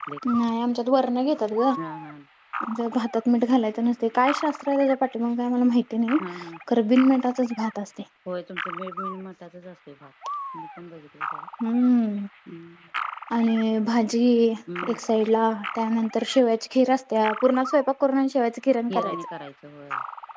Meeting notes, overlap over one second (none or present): none